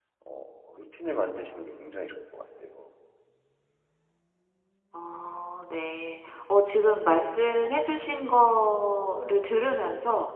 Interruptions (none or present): none